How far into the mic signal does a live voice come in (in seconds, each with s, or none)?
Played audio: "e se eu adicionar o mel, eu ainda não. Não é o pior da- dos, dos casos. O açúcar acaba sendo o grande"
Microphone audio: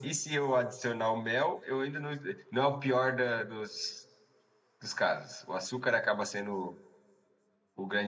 none